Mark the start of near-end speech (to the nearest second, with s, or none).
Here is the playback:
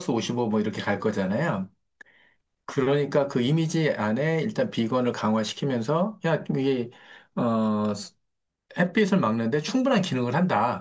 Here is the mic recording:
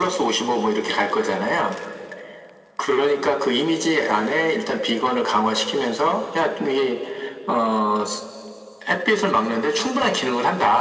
none